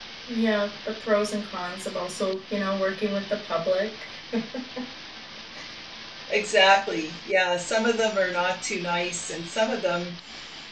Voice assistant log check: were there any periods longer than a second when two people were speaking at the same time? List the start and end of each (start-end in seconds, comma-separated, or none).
none